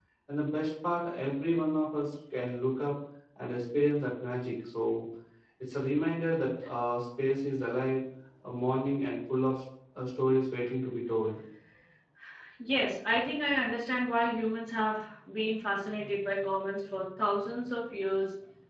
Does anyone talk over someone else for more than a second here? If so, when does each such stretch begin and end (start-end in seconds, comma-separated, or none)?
none